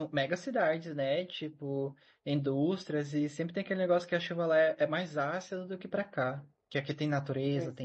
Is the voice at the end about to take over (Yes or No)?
No